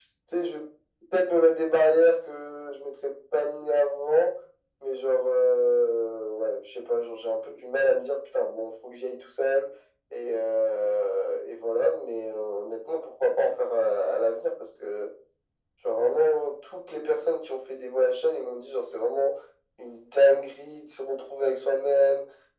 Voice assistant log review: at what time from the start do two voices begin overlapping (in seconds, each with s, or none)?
none